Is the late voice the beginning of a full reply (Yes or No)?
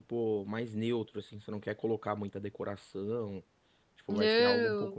Yes